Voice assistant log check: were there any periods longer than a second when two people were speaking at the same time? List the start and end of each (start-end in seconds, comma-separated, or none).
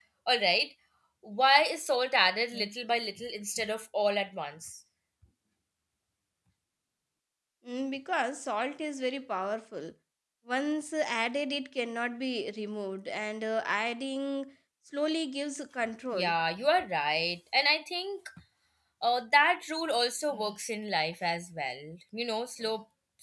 none